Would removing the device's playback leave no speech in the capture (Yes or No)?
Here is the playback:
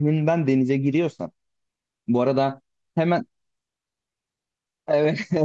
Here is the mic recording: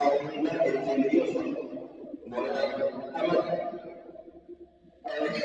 Yes